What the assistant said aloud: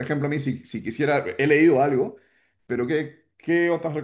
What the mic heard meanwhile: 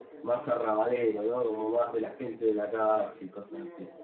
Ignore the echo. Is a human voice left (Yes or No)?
Yes